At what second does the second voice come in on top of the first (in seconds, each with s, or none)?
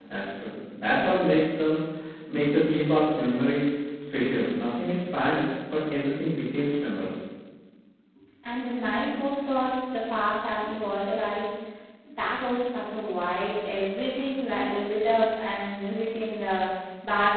none